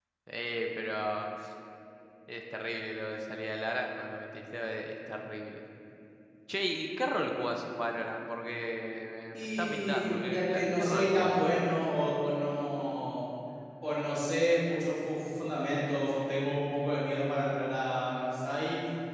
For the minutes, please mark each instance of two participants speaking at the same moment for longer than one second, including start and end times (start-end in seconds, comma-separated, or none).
9.3-11.4